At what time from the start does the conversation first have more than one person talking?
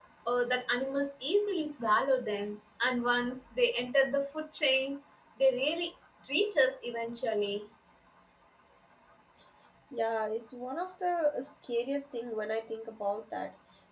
none

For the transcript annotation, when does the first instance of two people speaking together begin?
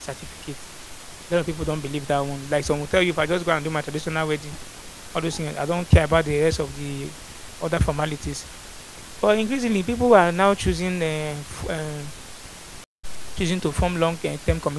none

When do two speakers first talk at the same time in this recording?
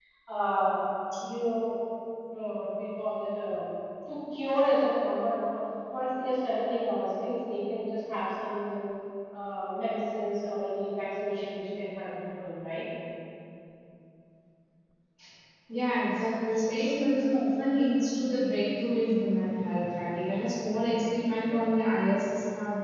none

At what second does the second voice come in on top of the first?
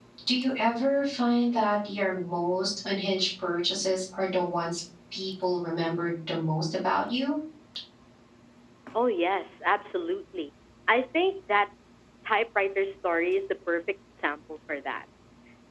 none

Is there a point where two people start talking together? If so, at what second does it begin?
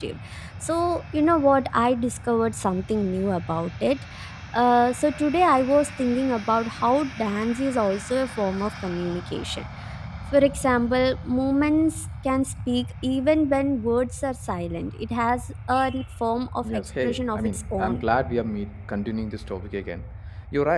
17 s

